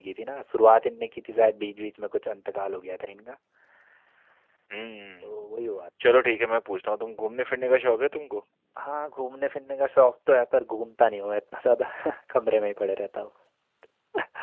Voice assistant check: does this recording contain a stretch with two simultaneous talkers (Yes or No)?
No